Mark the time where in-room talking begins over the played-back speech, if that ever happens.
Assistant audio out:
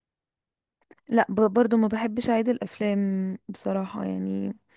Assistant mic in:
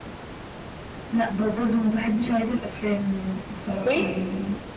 3.8 s

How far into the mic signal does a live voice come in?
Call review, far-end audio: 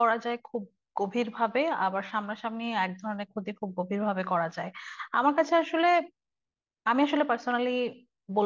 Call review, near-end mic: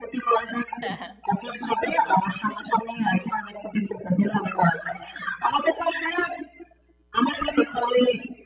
0.8 s

